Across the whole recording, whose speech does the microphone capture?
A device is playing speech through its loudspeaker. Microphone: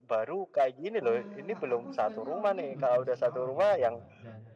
both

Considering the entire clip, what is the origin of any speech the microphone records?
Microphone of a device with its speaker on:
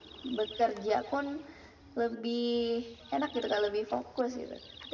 echo only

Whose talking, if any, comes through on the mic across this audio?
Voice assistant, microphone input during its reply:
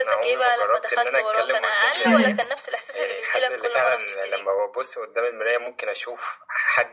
both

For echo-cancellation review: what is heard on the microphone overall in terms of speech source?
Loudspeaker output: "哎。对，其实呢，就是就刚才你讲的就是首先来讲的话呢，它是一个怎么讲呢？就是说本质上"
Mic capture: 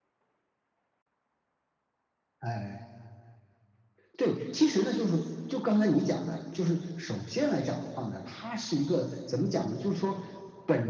echo only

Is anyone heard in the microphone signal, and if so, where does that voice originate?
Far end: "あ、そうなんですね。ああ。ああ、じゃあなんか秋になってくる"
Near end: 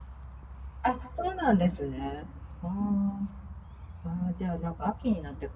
echo only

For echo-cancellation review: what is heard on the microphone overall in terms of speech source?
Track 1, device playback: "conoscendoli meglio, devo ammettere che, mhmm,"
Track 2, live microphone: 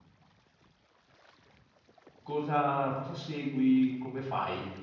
user only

